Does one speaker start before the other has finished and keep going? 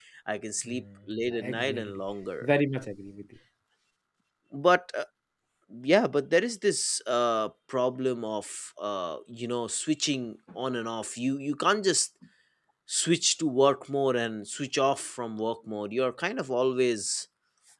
Yes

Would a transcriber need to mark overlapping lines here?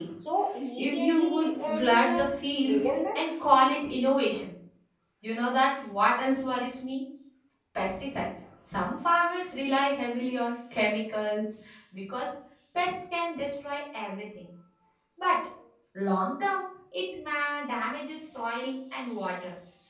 Yes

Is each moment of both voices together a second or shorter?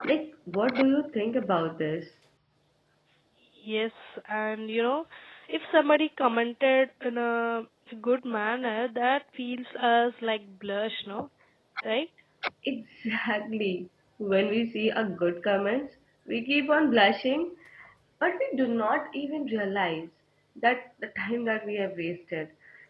Yes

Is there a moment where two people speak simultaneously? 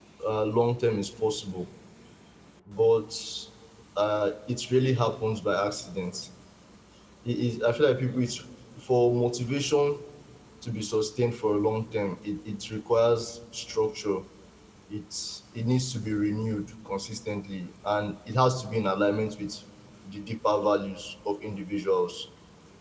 No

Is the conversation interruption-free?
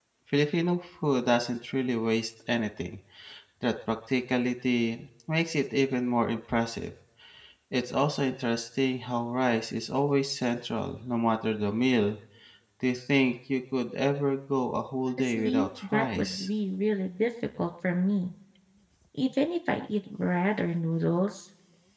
No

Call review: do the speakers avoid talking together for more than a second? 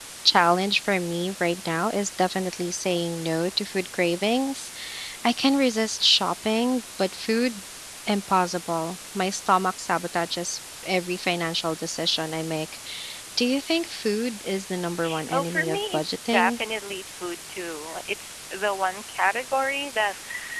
No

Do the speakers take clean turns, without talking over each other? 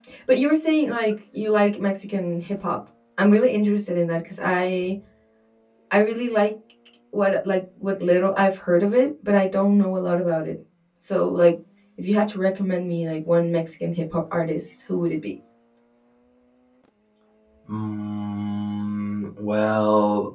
Yes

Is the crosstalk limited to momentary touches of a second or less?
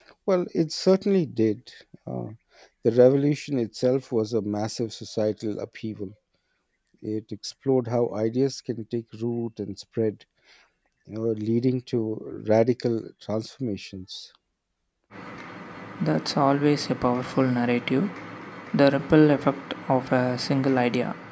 Yes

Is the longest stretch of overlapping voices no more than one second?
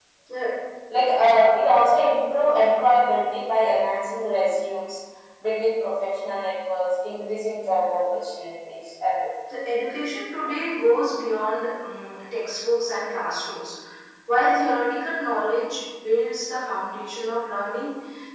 Yes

